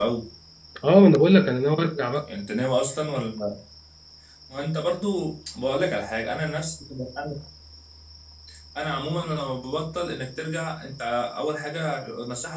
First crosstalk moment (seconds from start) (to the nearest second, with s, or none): none